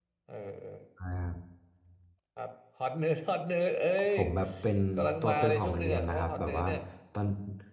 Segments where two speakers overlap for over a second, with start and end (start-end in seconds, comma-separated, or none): 5.2-6.7